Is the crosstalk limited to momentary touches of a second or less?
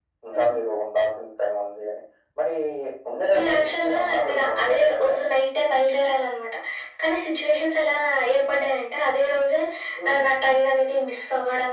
No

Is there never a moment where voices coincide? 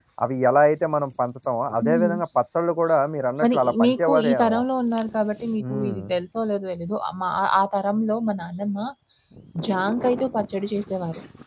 No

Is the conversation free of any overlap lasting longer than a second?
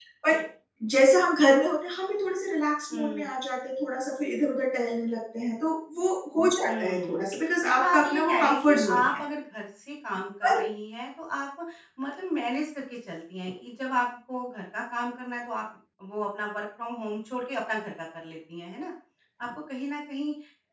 No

